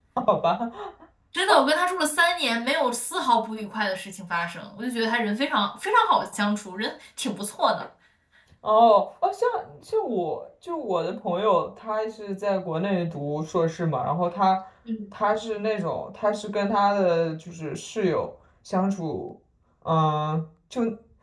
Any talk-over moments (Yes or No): No